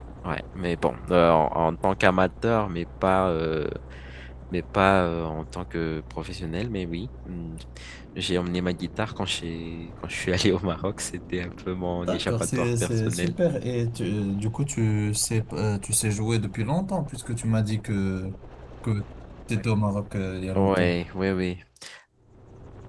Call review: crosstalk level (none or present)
present